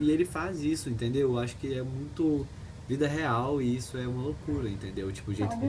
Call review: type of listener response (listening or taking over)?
taking over